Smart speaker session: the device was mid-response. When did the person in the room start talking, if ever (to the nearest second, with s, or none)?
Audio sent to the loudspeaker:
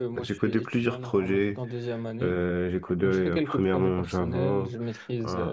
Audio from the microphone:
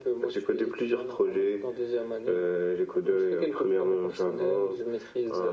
none